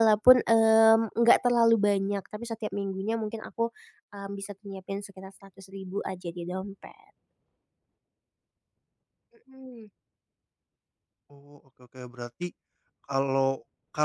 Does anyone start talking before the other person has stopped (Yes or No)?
No